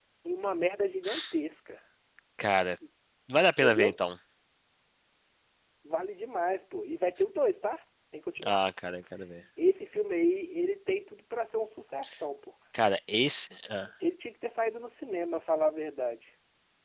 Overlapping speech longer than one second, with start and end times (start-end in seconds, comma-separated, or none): none